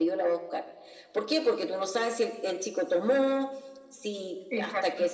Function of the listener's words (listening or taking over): listening